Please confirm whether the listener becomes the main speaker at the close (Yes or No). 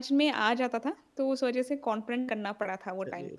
Yes